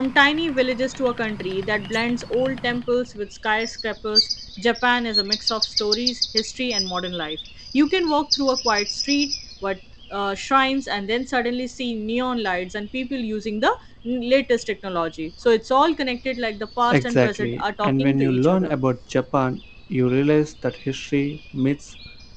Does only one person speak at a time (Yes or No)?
No